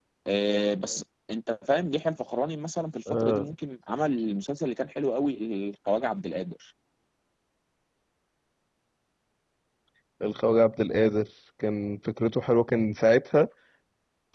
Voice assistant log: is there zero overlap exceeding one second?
Yes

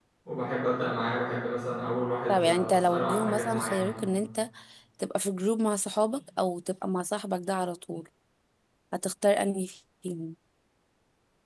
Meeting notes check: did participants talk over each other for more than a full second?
Yes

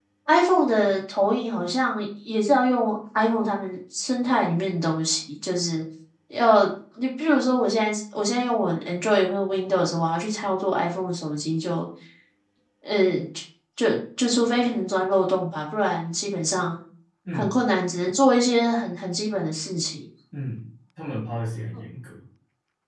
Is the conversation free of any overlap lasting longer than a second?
Yes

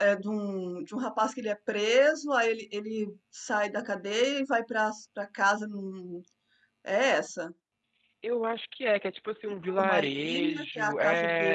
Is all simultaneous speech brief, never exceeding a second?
No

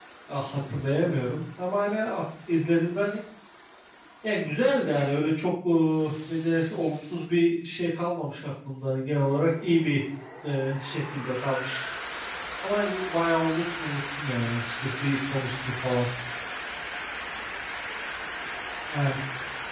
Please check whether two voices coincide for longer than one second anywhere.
No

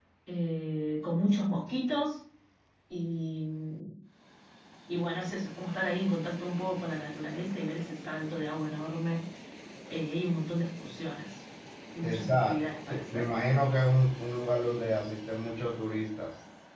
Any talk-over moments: Yes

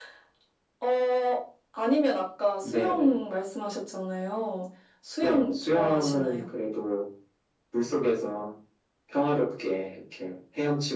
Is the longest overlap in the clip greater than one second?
Yes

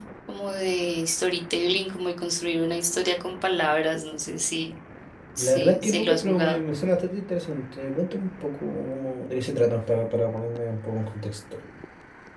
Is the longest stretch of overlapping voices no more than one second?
No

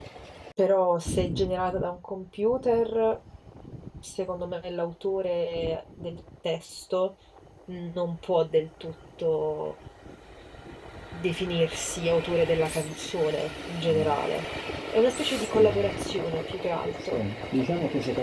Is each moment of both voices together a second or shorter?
Yes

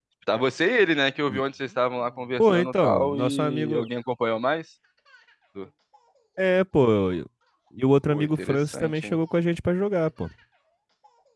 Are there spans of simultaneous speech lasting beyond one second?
Yes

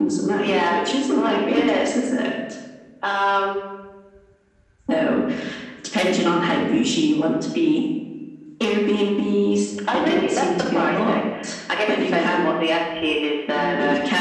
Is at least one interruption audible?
Yes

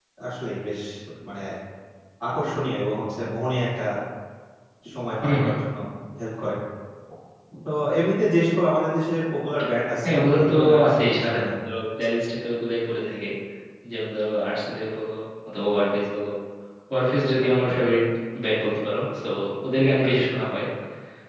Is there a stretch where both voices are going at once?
Yes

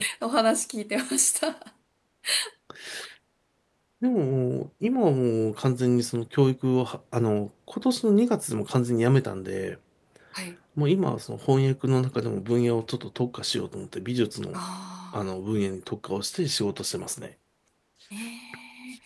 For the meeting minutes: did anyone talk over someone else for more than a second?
No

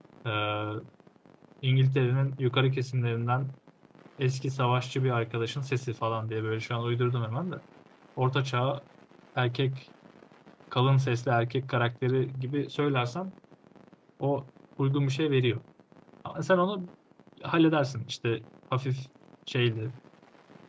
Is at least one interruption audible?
No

